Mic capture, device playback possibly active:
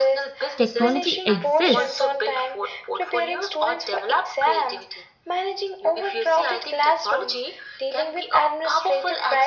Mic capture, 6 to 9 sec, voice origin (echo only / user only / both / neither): echo only